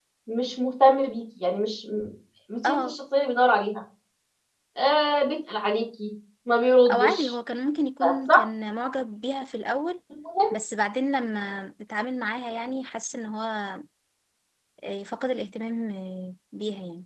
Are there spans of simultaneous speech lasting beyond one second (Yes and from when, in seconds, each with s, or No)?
No